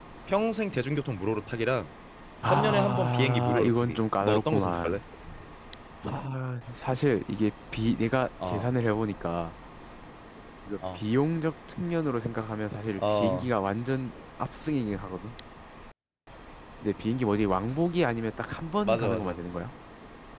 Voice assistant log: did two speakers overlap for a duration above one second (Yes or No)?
Yes